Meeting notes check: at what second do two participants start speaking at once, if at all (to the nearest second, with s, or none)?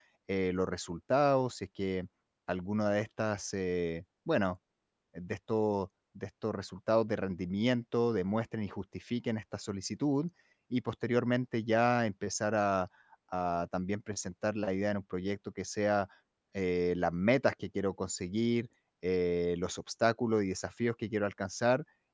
none